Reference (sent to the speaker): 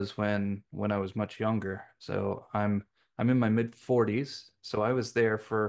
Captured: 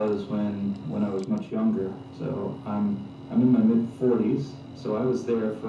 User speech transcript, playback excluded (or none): none